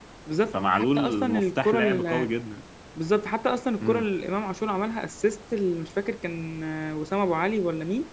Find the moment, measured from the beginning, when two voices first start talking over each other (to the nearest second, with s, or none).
1 s